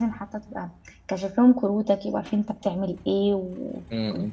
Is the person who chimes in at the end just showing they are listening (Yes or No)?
Yes